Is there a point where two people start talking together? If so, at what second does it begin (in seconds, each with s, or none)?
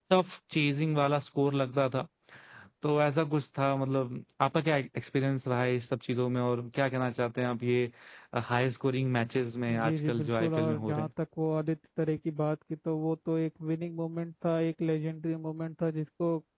9.7 s